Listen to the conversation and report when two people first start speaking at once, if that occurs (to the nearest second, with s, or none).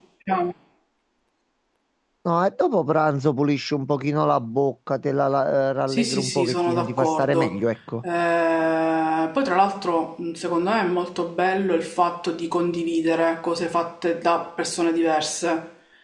6 s